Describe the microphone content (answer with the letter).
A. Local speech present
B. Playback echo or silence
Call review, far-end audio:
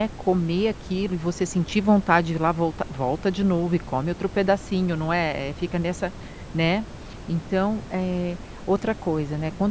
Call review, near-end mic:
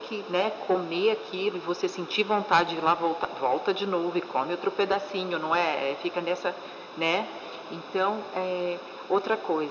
B